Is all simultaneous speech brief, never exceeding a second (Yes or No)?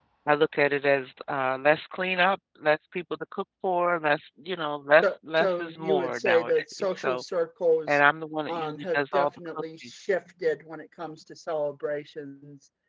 No